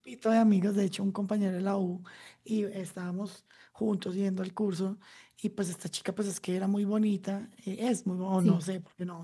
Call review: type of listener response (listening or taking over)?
listening